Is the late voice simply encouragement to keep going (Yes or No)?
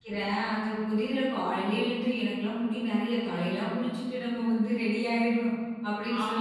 Yes